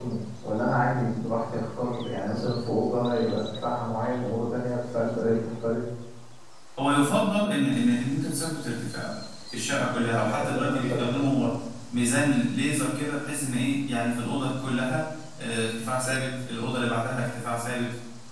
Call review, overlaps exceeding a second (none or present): present